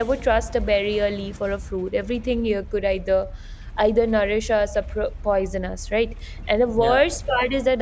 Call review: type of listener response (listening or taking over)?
listening